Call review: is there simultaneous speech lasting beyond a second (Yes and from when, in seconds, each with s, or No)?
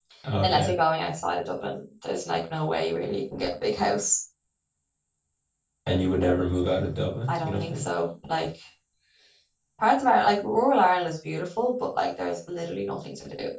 No